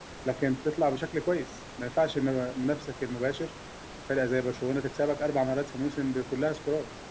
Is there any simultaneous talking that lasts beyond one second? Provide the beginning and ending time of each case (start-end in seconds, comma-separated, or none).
none